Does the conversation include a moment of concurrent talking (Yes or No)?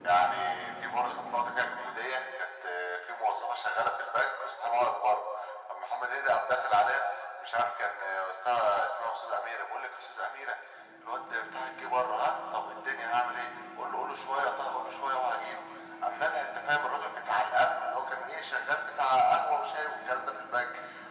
No